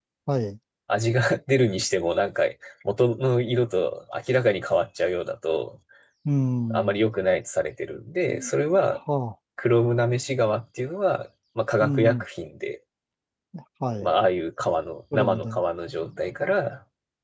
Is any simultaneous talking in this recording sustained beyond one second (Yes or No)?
No